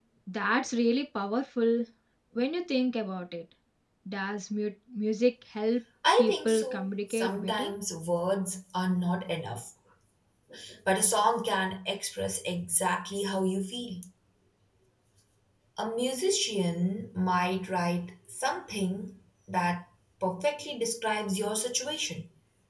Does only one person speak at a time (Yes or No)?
No